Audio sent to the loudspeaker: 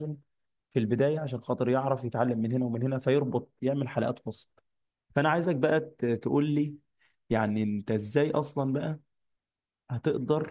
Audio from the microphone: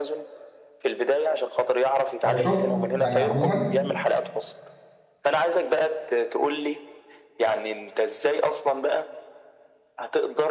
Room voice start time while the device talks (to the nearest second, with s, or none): 2 s